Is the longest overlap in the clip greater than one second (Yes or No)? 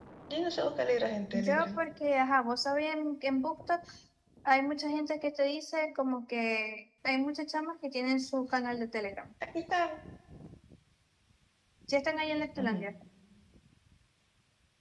No